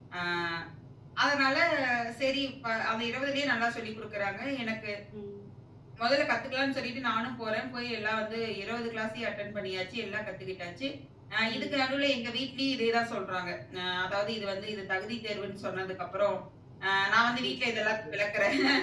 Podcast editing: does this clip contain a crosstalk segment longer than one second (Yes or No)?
No